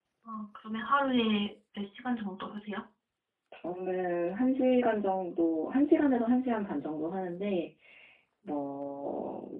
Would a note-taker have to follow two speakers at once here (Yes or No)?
No